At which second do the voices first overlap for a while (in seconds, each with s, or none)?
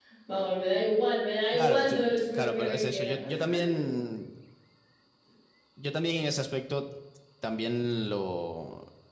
1.5 s